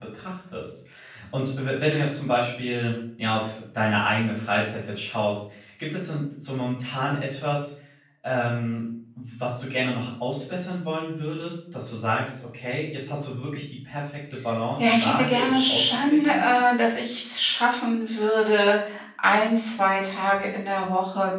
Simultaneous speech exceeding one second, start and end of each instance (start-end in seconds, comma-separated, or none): 14.8-16.4